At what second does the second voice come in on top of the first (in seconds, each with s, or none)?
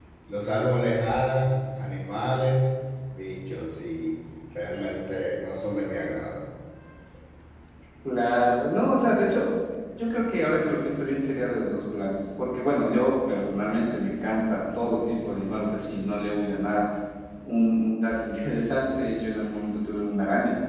none